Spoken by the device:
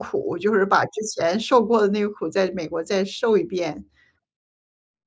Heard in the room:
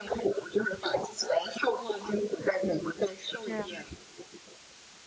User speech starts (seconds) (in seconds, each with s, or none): 3.5 s